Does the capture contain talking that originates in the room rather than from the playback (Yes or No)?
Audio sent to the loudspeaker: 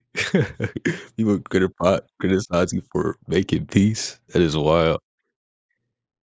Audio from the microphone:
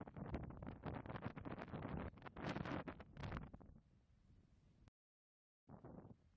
No